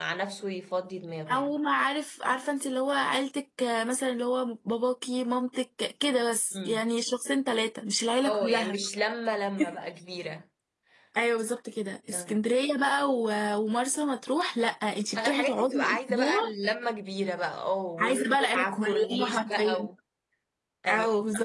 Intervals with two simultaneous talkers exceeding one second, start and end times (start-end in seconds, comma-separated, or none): 15.2-16.4, 18.0-19.9